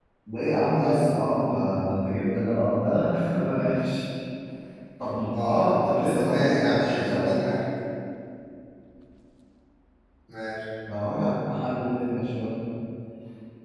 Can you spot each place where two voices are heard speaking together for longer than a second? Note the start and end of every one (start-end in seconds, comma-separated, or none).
5.3-7.3